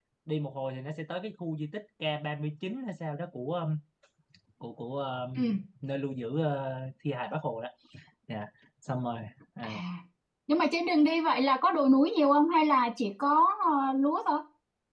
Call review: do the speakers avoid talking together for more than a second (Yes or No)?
Yes